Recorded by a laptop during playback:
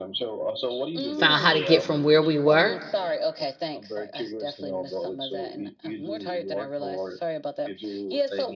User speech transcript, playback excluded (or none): found how to get from where we were